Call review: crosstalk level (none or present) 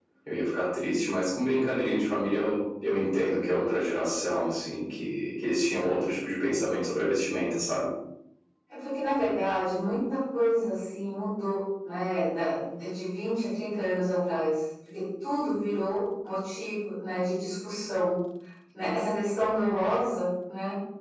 none